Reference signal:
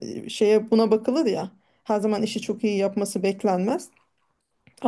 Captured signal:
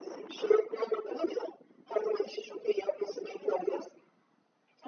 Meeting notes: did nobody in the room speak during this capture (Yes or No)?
Yes